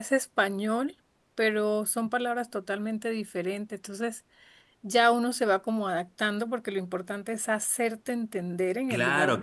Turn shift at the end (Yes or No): Yes